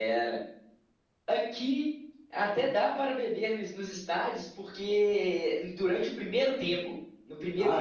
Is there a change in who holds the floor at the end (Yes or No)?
No